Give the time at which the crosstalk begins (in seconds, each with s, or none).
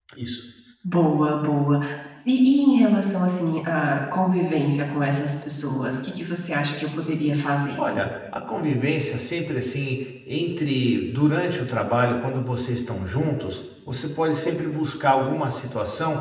none